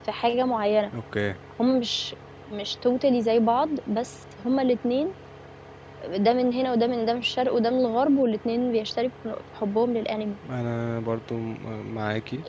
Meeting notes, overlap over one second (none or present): none